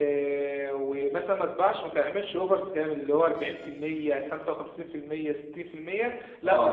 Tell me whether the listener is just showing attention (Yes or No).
Yes